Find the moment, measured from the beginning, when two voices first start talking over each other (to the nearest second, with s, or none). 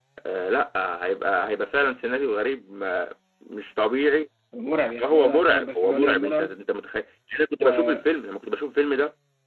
5 s